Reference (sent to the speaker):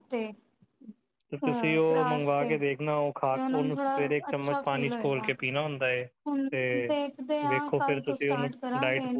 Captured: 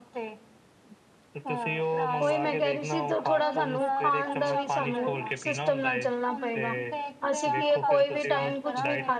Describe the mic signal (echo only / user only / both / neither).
both